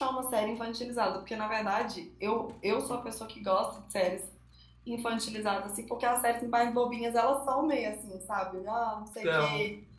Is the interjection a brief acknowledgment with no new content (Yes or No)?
Yes